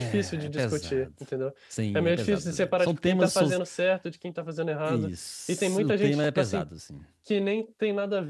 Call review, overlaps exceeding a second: present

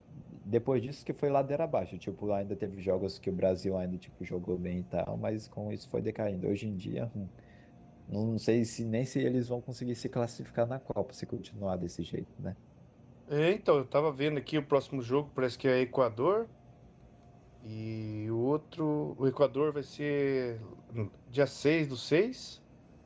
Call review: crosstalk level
none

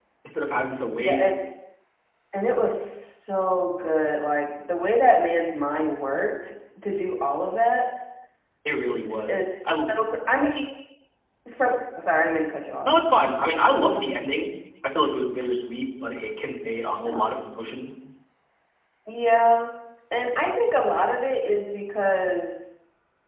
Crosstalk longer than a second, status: none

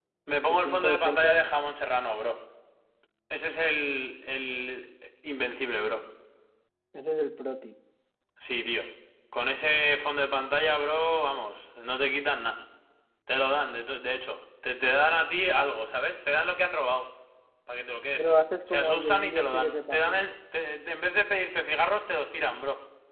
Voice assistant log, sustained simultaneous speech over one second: present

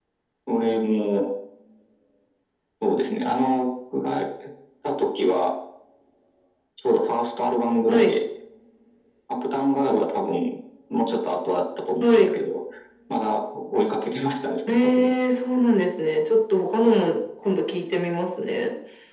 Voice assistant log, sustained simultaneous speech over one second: none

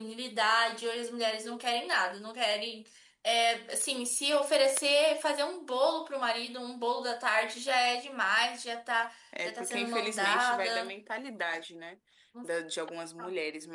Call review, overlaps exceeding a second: present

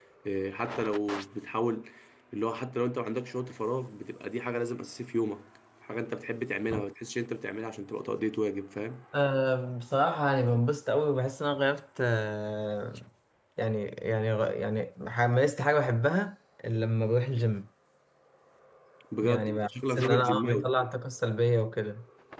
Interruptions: present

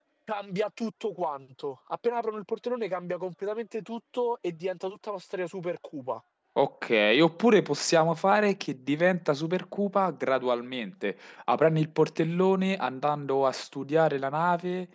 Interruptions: none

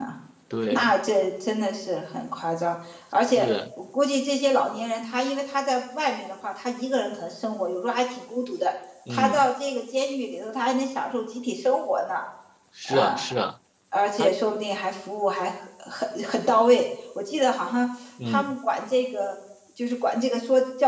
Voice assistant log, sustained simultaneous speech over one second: none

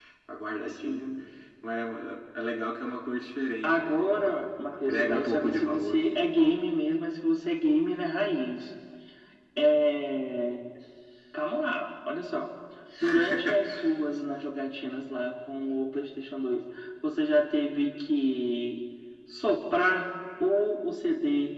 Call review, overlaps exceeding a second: present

